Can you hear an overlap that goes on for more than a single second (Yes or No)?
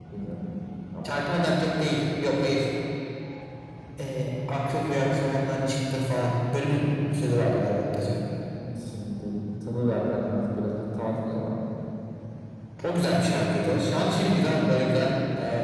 No